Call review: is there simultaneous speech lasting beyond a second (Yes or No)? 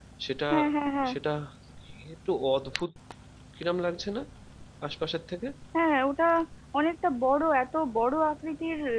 No